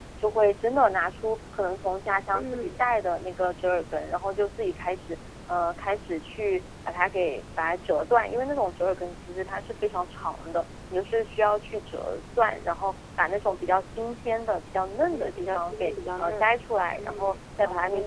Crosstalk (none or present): present